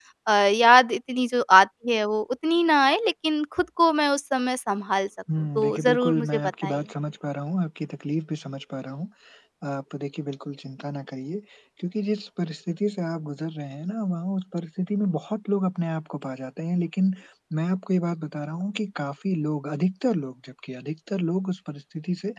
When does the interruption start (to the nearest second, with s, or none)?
6 s